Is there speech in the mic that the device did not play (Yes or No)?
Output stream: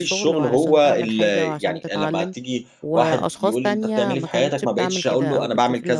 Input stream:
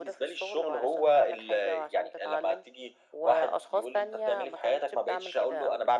No